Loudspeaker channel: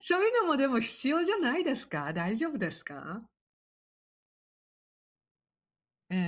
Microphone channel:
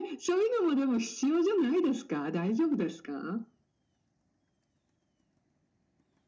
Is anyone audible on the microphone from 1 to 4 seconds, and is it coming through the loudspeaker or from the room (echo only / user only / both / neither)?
echo only